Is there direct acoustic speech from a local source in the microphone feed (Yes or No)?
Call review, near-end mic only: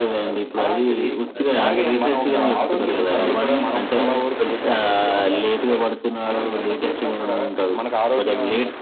Yes